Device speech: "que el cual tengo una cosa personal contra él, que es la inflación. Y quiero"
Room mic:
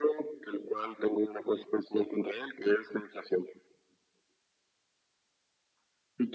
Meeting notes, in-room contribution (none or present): none